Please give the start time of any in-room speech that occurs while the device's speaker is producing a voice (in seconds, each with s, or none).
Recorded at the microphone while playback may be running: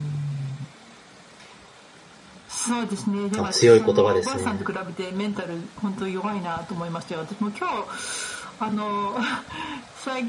3.3 s